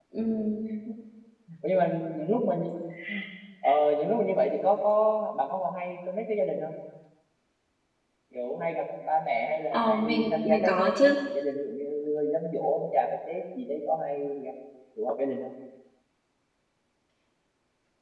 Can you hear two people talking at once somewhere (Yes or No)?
Yes